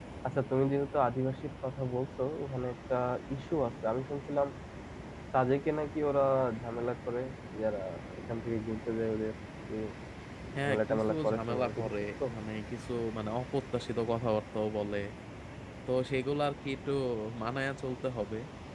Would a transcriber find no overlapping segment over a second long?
No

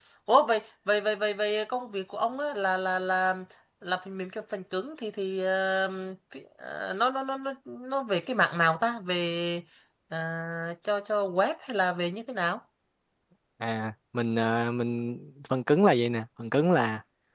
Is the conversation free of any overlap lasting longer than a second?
Yes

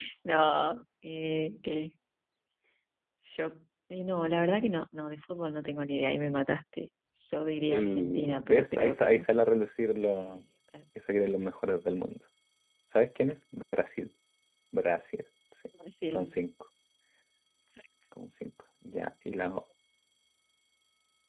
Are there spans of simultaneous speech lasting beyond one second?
Yes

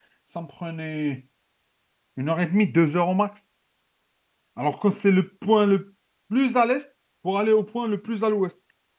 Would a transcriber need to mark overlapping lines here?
No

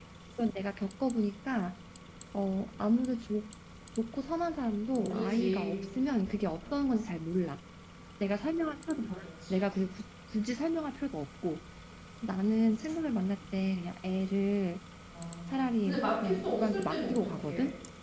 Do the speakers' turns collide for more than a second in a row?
Yes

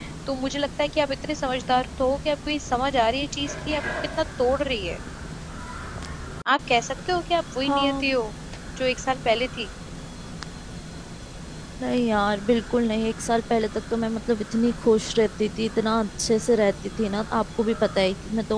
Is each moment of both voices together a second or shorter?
Yes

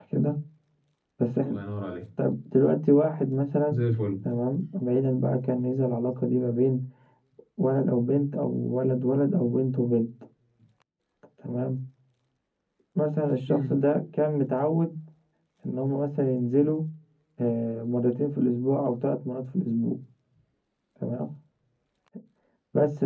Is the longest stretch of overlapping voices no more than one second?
Yes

